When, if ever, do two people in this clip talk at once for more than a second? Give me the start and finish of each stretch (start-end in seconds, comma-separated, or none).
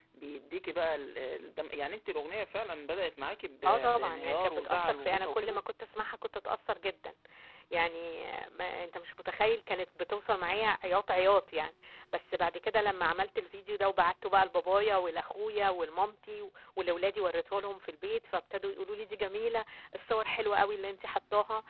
3.6-5.6